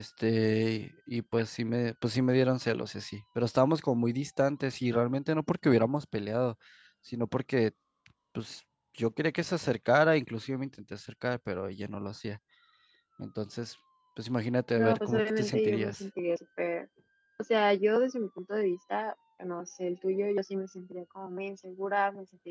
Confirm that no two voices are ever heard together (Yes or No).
No